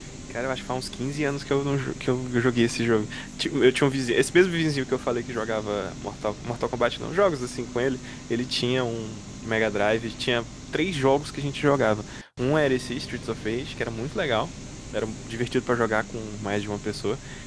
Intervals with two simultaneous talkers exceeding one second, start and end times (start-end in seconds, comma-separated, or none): none